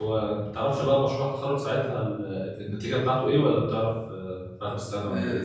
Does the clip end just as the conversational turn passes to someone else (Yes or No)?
Yes